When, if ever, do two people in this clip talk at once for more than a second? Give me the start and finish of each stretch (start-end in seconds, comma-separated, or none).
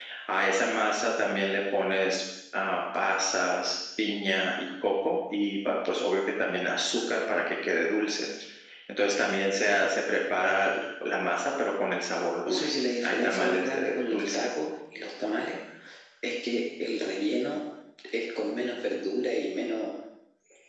12.5-14.4